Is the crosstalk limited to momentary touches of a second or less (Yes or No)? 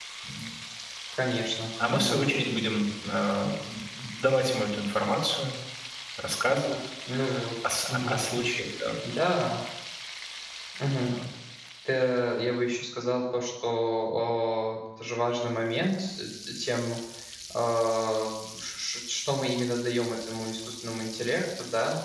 Yes